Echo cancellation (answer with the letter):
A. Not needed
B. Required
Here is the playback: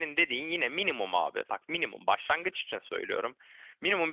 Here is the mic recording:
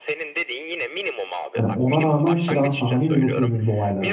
B